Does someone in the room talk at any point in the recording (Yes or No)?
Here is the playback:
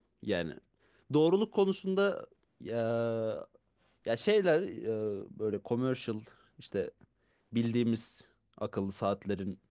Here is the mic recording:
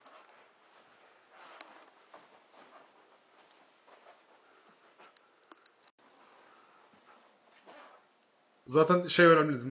Yes